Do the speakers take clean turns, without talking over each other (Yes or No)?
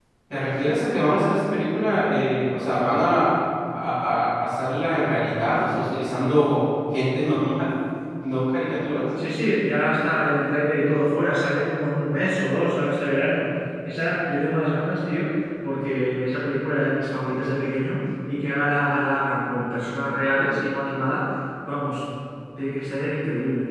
Yes